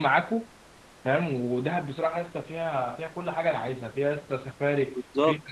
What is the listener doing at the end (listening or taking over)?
listening